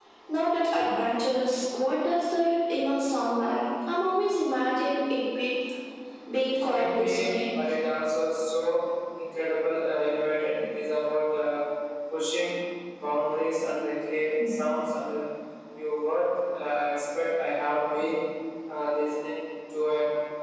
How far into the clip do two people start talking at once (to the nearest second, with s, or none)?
6 s